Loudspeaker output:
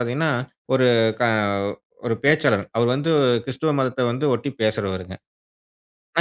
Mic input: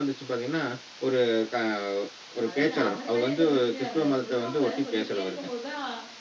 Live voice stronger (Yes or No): No